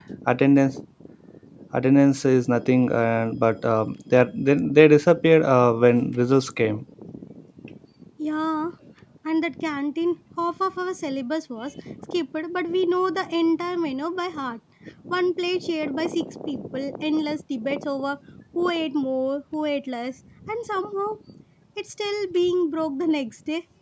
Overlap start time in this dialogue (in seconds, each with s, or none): none